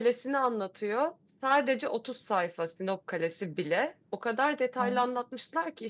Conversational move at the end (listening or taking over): listening